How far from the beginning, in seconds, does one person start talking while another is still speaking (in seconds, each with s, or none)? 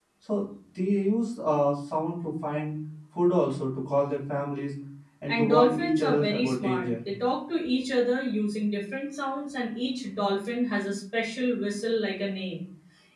5.3 s